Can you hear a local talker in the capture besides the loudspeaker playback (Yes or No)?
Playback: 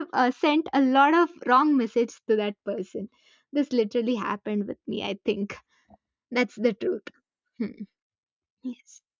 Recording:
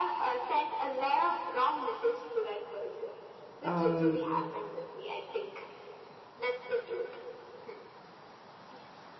Yes